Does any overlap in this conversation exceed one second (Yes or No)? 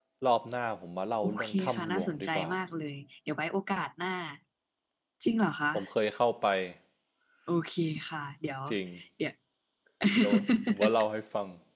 Yes